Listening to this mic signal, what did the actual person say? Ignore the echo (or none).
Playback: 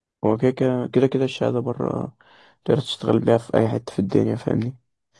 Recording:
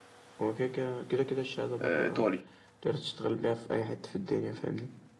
آه، ايطالي